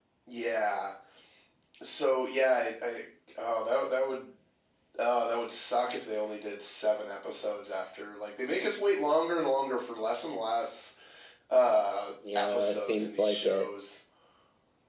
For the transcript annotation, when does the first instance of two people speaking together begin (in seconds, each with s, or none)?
12.4 s